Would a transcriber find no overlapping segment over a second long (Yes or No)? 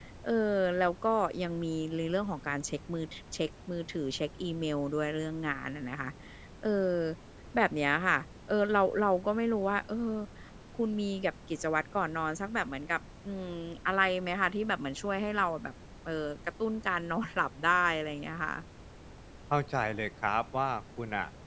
Yes